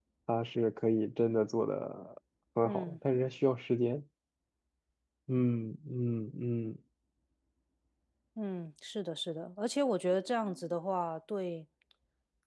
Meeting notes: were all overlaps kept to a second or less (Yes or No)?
Yes